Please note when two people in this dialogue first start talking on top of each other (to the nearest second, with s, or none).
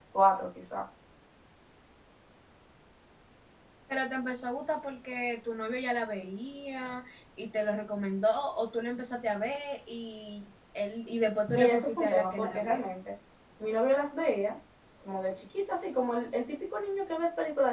12 s